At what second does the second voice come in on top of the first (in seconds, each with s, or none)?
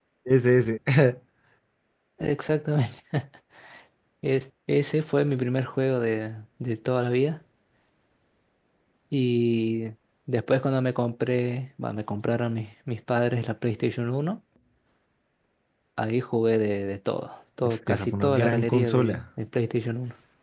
17.6 s